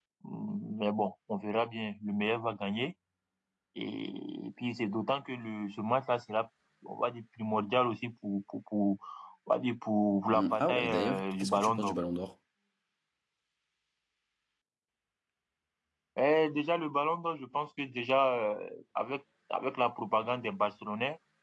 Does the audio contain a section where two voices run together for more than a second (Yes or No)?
Yes